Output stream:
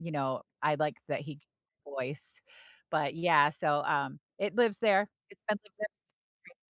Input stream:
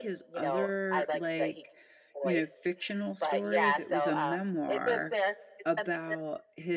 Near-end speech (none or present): present